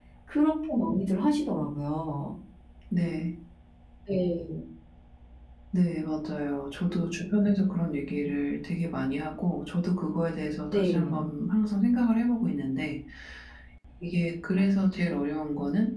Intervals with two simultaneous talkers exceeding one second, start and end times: none

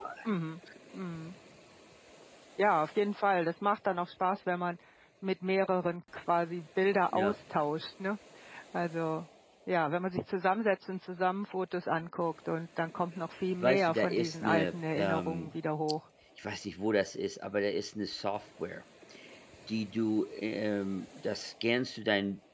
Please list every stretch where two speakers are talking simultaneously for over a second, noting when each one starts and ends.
13.6-15.5

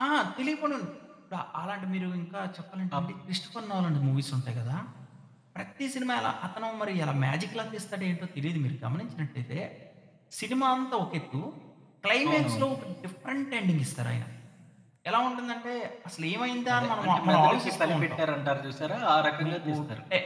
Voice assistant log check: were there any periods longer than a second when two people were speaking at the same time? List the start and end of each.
16.7-18.2

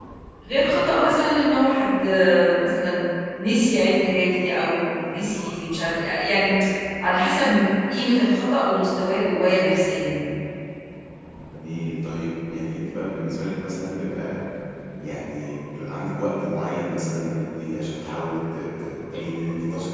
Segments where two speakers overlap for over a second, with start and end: none

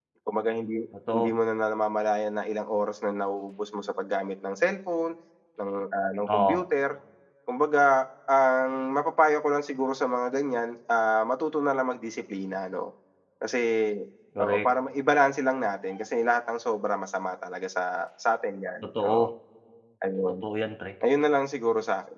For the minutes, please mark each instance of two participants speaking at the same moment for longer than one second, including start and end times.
none

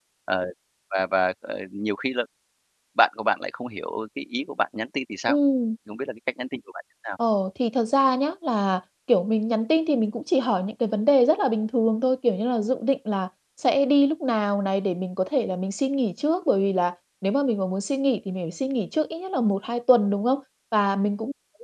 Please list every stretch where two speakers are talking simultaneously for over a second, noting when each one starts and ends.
none

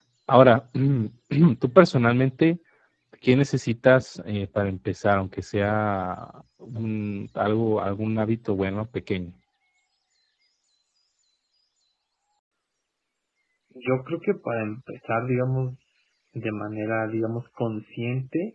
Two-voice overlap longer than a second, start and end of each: none

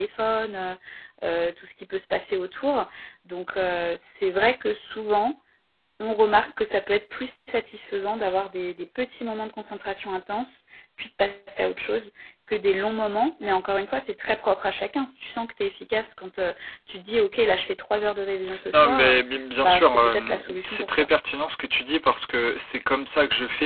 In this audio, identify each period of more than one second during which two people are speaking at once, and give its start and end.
19.6-21.1

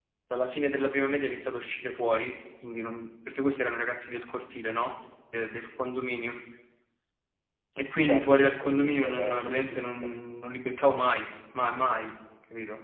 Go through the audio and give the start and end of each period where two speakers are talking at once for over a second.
8.0-10.1

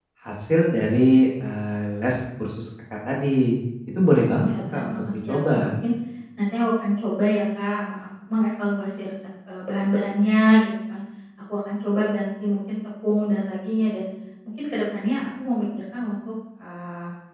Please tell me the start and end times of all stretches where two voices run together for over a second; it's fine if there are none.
4.1-5.7

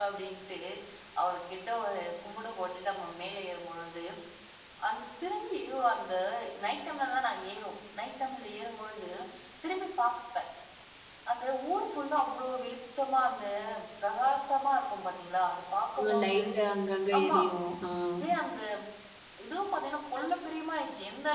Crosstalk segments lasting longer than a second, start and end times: none

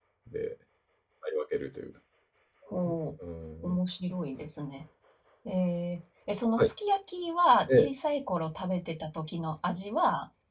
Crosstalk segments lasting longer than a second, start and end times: none

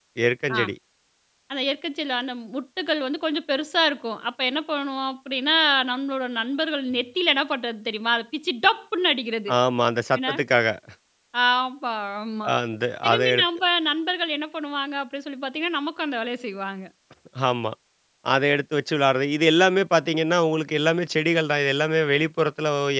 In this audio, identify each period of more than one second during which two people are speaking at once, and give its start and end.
none

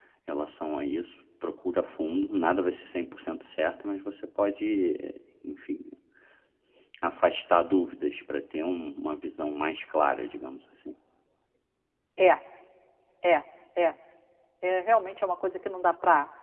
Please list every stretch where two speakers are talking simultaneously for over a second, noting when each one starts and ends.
none

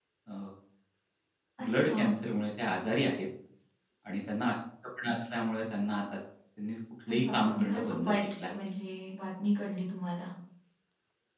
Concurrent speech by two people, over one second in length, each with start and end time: 7.1-8.5

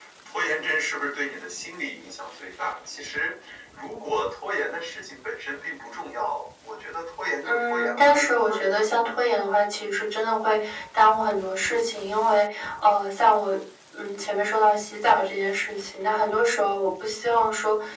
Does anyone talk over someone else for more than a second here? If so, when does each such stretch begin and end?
7.4-8.9

